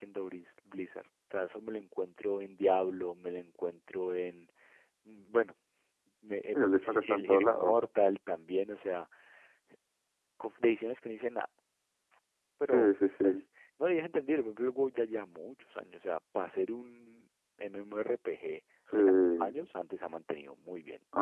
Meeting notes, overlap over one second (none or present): present